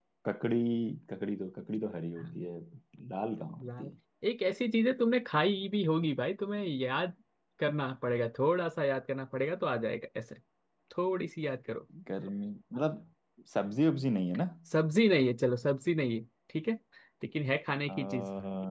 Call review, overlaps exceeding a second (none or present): none